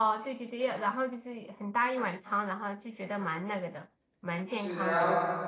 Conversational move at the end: taking over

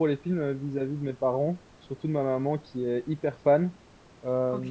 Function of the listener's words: listening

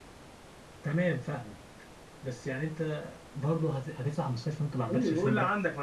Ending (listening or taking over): taking over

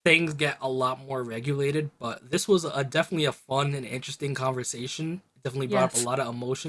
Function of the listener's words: listening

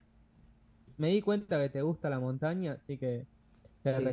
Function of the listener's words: listening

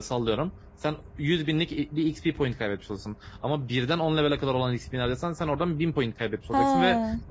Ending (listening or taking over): listening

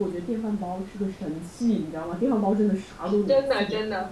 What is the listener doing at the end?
taking over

